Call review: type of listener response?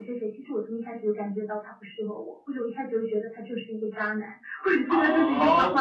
taking over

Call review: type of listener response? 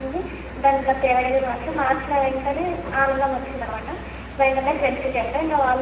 listening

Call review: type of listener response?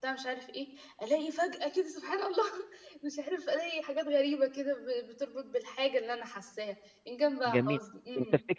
taking over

